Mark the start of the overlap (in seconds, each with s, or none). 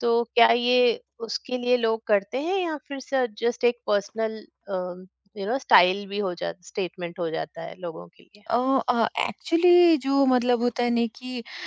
none